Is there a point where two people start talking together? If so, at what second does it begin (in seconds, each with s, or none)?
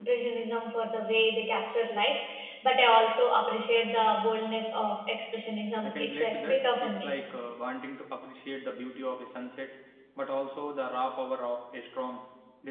5.8 s